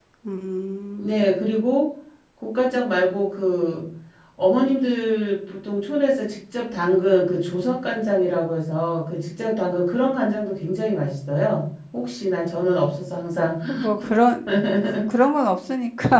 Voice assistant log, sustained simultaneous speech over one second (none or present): none